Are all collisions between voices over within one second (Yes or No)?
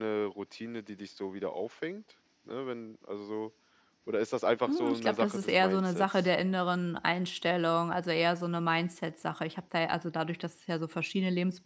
No